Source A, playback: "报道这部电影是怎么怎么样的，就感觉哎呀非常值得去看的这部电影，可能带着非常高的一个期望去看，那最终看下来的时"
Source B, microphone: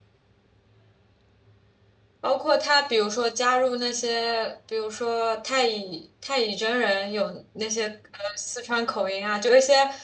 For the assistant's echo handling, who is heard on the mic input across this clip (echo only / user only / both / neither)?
user only